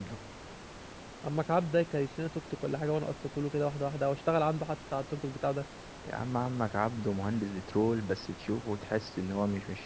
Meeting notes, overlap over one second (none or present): none